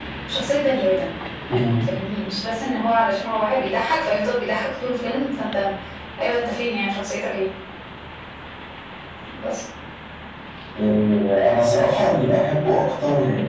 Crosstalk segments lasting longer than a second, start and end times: none

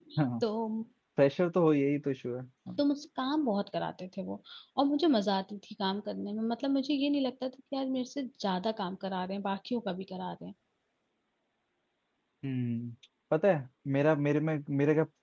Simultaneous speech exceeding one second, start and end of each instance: none

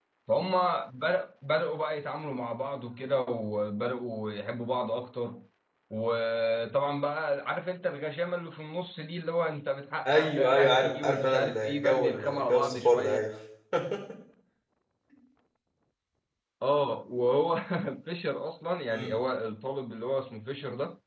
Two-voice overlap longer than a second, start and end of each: 10.1-13.2

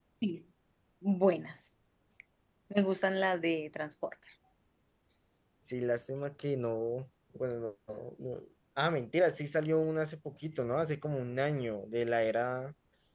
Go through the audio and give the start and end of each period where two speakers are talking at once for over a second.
none

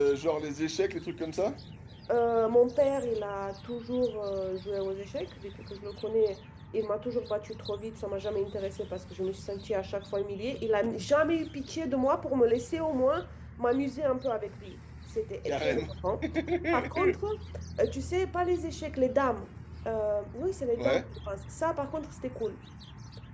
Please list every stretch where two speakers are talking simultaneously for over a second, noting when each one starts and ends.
none

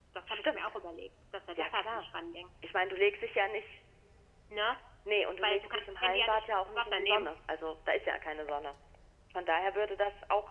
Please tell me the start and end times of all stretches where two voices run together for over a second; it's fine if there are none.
5.4-7.3

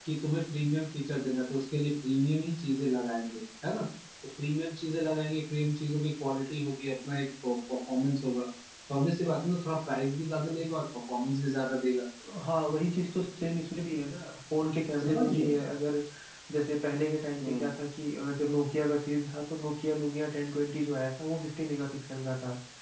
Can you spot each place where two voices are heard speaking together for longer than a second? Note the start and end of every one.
none

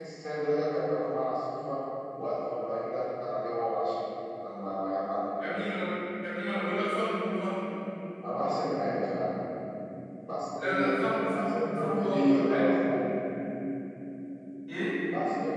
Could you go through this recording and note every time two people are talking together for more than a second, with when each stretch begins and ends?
11.3-12.7

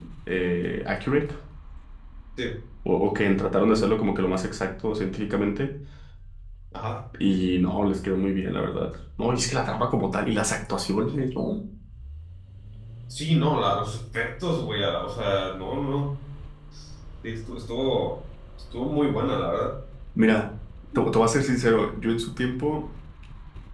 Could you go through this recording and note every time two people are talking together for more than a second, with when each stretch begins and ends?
none

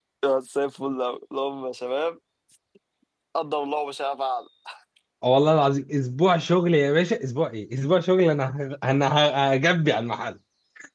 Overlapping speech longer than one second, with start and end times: none

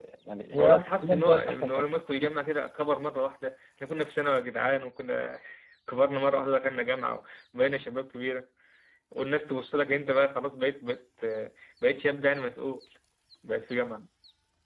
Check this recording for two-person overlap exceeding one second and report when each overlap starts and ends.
0.6-1.9

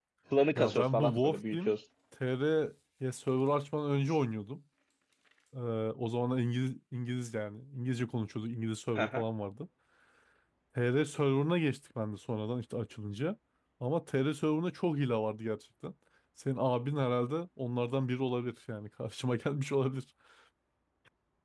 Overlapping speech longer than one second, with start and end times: 0.6-1.8

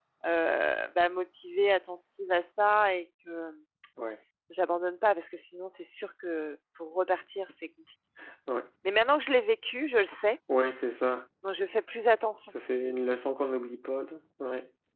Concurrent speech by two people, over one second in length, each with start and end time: none

